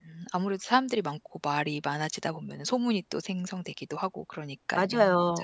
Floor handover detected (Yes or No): Yes